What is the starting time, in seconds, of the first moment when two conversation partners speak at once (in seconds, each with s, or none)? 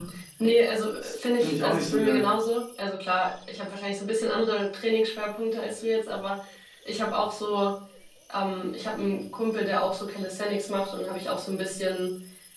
1.0 s